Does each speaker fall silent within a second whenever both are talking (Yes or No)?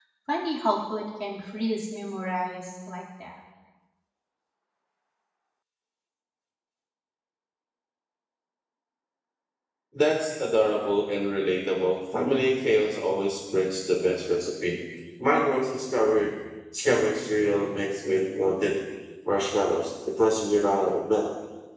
Yes